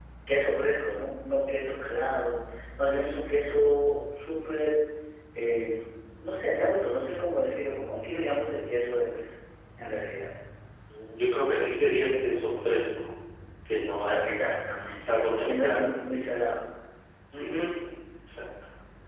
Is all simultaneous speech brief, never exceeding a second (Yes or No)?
No